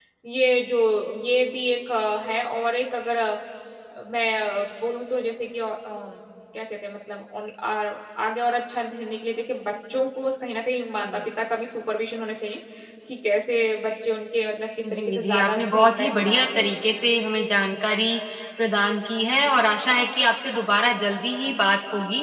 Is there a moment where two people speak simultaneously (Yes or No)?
Yes